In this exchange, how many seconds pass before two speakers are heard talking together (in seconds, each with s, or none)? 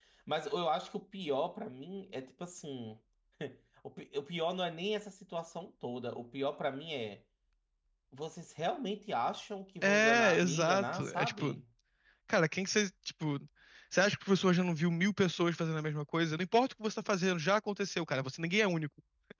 9.8 s